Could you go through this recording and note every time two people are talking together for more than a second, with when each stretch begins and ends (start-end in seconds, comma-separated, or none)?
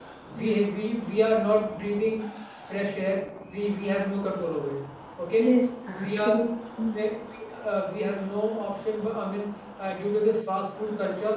none